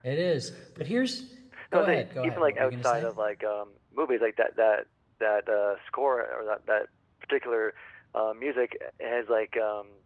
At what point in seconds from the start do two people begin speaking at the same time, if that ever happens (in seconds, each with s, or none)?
1.7 s